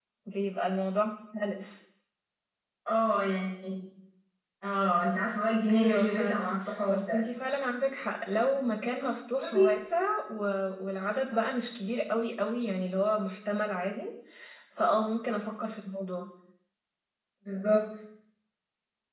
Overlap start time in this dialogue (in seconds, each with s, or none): 5.7 s